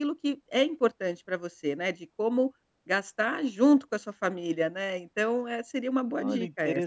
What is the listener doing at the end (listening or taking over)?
taking over